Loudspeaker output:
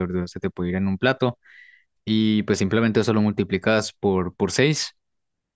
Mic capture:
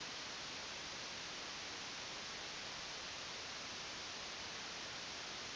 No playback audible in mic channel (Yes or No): Yes